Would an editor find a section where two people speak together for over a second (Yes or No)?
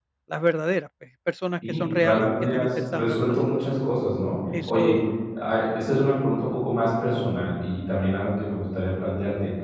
Yes